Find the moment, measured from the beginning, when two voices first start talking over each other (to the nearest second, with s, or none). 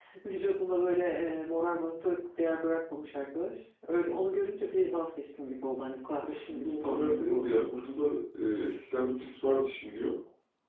6 s